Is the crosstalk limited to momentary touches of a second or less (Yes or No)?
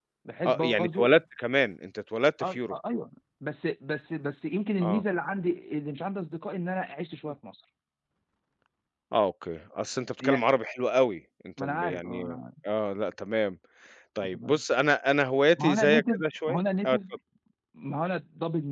No